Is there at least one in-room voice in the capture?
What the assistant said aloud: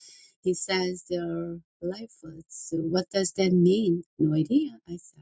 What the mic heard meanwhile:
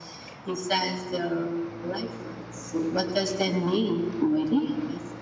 No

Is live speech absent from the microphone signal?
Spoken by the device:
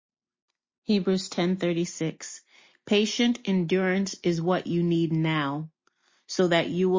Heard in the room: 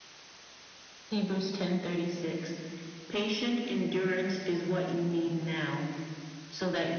Yes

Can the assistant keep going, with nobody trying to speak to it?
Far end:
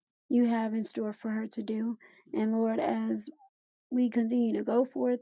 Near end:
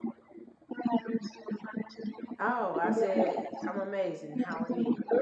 No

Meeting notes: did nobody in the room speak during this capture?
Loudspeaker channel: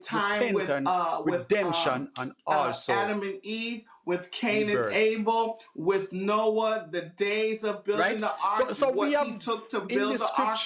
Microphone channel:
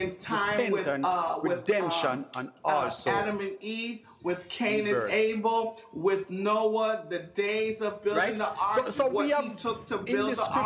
Yes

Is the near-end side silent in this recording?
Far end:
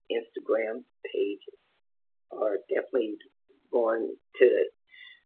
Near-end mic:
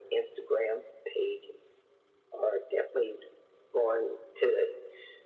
Yes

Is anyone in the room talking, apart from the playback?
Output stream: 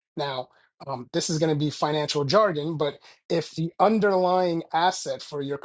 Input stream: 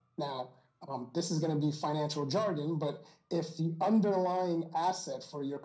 No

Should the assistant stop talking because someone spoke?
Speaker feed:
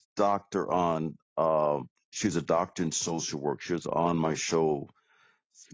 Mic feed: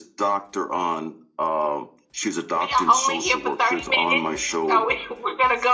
Yes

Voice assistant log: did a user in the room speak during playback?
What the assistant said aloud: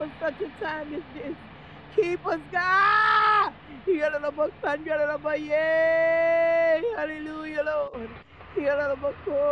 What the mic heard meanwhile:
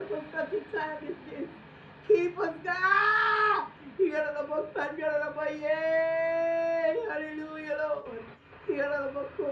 No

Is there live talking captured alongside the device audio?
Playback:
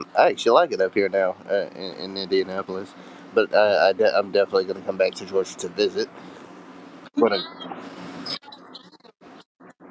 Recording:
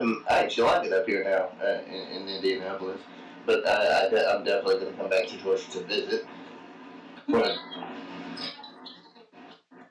No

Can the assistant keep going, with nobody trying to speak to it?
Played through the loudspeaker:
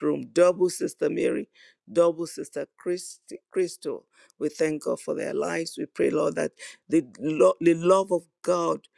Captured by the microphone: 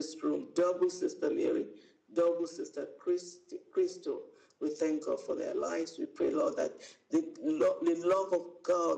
Yes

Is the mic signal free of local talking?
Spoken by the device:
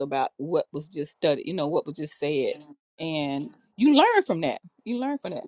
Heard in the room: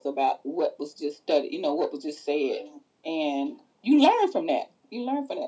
Yes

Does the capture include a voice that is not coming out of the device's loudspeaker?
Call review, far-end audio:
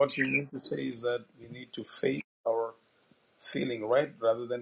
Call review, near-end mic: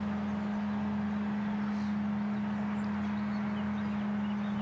No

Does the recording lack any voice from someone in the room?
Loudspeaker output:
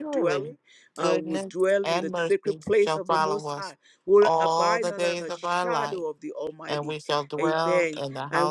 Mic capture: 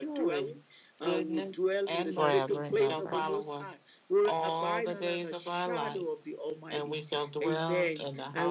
No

